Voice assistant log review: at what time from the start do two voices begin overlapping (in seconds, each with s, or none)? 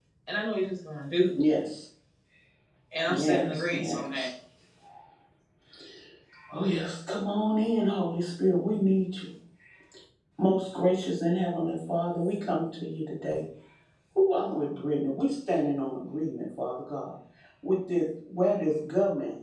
3.1 s